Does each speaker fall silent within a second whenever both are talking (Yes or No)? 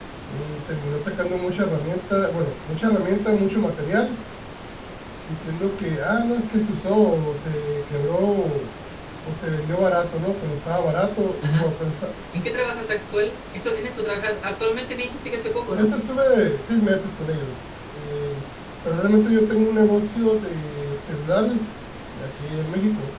Yes